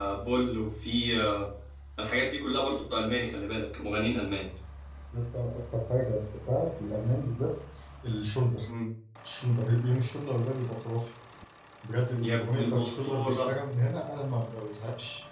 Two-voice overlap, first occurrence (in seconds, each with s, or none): 12.2 s